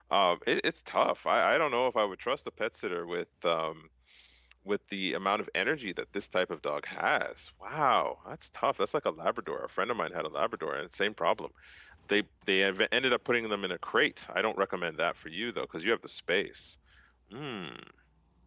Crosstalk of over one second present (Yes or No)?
No